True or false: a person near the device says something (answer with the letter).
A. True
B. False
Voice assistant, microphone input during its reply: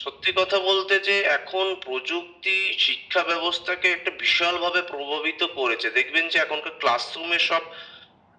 B